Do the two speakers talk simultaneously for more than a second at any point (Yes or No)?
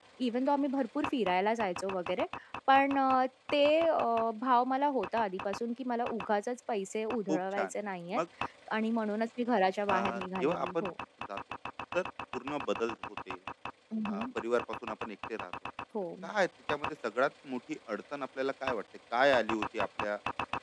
No